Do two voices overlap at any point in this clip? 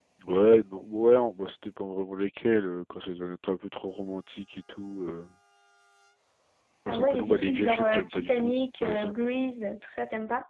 Yes, from 6.9 s

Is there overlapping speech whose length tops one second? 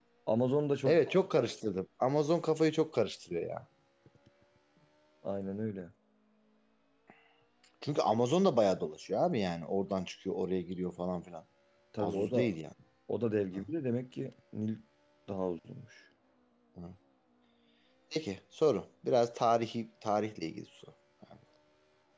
No

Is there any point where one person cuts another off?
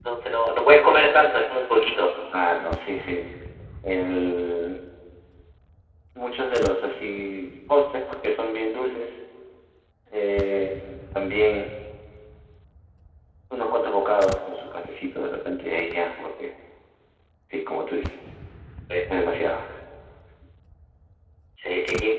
No

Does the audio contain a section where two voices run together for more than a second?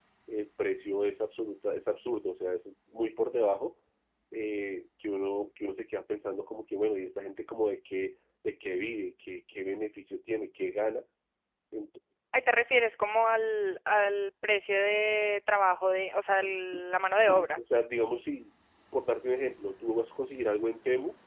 No

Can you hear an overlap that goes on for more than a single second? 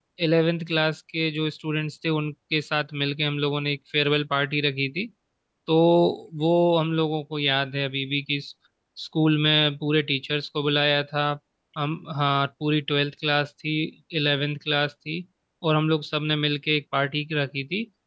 No

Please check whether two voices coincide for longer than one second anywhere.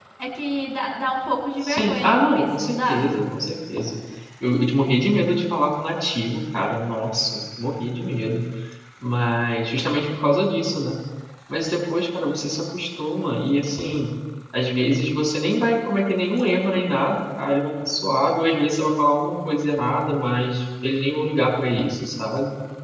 Yes, from 1.6 s

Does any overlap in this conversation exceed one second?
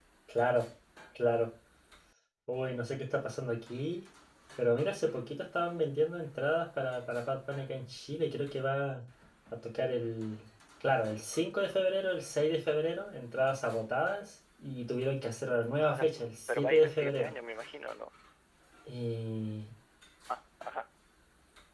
Yes, from 15.9 s

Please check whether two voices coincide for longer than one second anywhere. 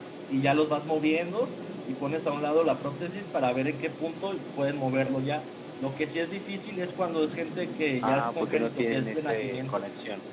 Yes, from 8.0 s

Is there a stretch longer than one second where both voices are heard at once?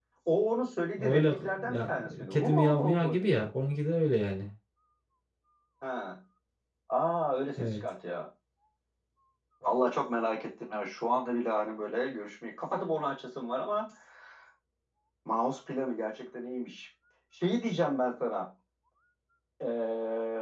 Yes, from 1.0 s

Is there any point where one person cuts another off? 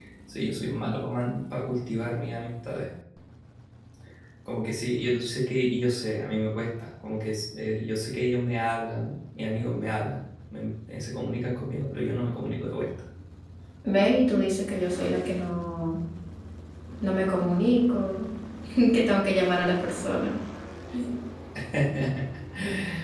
No

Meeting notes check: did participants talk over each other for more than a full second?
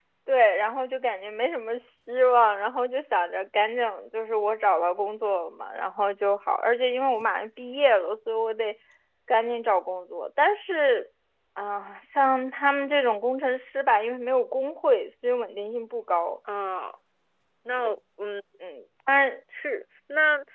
No

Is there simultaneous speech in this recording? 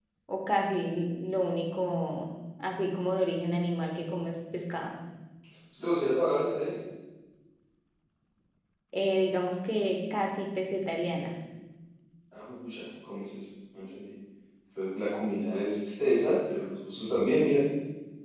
No

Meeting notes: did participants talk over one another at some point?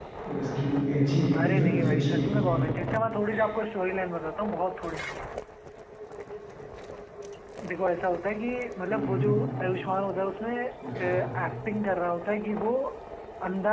Yes, from 1.4 s

